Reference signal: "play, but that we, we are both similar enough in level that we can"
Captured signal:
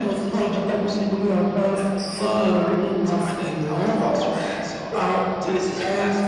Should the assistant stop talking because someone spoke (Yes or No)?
Yes